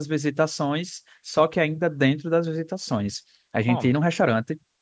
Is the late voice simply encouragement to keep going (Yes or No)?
Yes